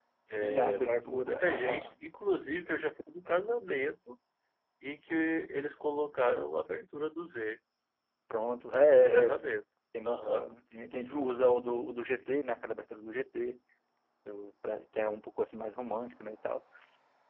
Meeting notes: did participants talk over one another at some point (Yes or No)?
Yes